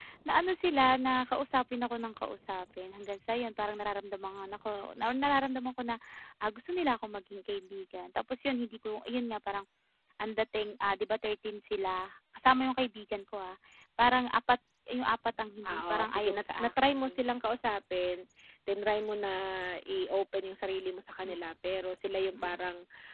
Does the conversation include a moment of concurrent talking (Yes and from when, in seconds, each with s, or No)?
Yes, from 15.6 s